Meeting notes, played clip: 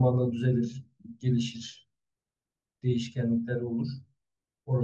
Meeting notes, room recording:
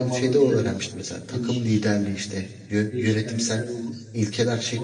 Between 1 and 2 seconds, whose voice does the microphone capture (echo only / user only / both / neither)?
both